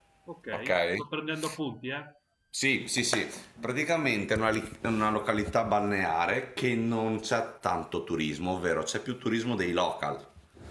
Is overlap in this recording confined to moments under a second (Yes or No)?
Yes